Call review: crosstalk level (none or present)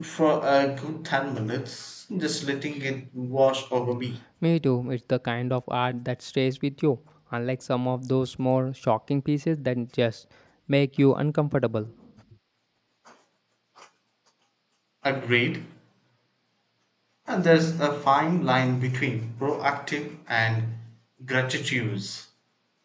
none